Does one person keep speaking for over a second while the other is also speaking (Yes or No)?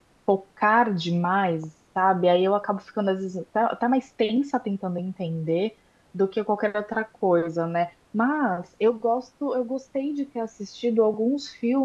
No